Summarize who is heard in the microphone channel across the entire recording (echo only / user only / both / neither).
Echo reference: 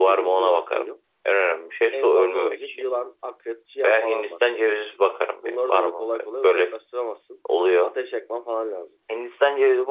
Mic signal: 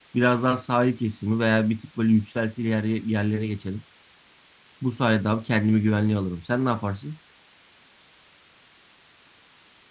user only